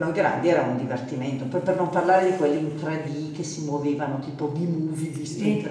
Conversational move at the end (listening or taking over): listening